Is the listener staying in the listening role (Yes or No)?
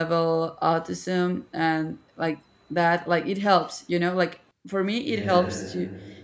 Yes